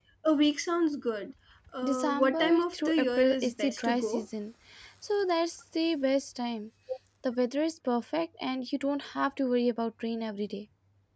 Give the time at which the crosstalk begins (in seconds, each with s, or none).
1.8 s